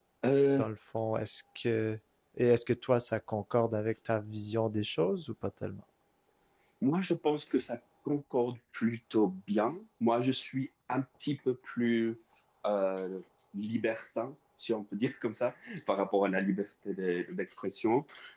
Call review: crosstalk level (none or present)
none